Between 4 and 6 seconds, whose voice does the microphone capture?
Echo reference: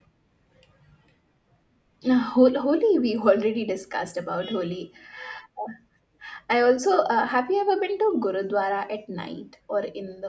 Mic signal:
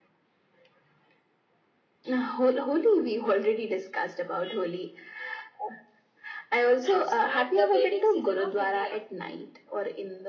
echo only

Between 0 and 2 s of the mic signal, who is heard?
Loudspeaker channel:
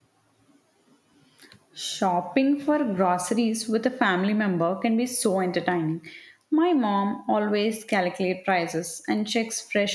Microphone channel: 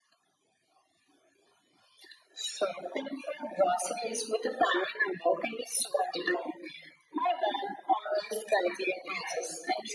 neither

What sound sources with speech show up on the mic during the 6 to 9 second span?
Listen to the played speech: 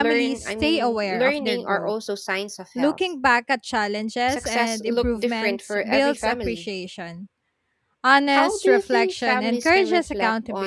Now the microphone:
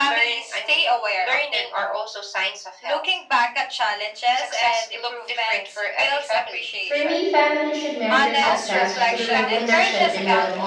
both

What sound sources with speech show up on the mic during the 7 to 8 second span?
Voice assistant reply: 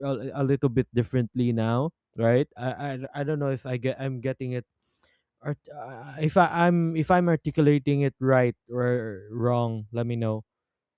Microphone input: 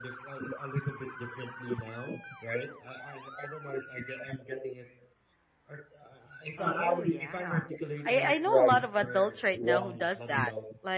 both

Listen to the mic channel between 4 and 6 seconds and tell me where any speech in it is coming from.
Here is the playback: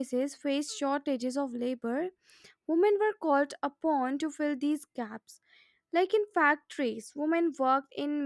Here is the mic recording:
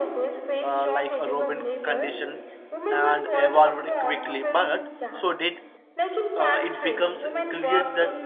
both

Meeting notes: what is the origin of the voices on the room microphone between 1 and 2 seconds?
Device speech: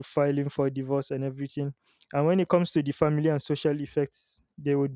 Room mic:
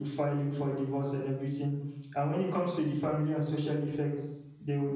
echo only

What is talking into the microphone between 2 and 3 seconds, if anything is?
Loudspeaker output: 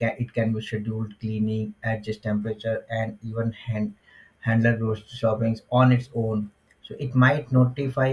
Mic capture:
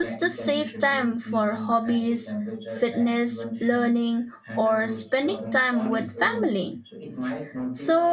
both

